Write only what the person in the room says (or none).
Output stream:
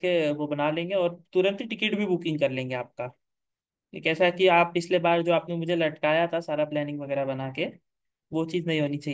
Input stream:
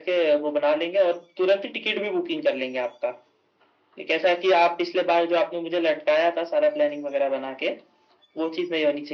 none